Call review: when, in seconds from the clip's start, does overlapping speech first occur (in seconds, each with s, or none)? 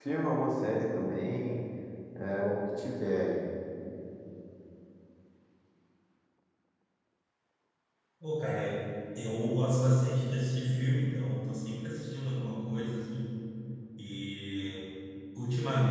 none